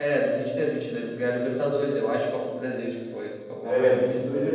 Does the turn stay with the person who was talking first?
No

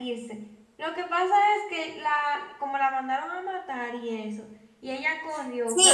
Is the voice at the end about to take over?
Yes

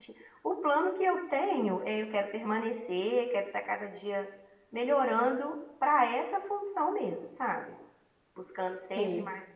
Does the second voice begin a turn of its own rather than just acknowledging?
No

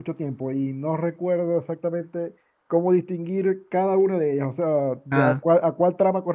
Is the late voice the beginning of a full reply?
No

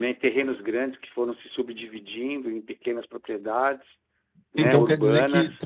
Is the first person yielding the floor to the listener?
Yes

